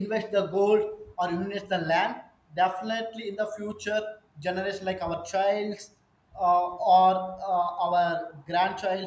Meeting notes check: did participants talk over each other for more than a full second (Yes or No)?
No